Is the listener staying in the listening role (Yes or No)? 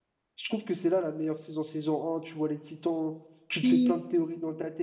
Yes